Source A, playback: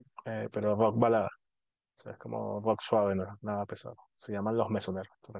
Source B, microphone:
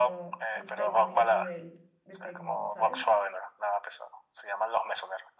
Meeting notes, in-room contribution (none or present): present